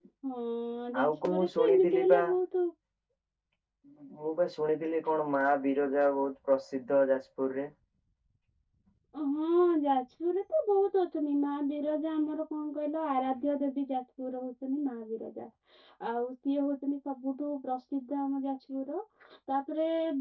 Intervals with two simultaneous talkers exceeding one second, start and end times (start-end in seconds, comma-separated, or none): 1.0-2.2